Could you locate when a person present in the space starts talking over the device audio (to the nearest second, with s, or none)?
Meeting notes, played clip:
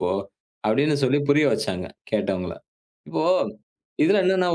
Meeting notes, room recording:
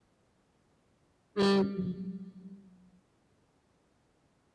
1 s